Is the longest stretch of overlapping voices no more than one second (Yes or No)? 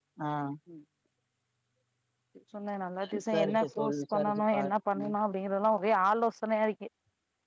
No